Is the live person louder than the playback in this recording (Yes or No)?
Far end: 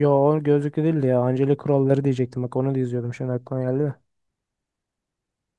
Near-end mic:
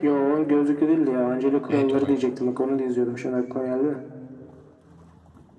No